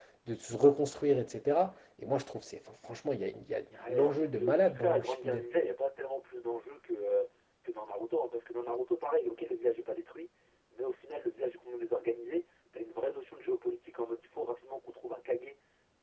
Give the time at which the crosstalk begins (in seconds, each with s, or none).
3.7 s